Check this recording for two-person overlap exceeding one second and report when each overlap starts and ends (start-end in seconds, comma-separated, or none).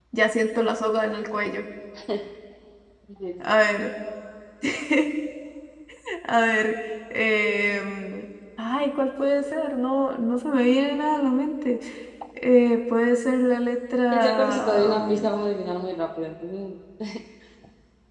14.1-15.3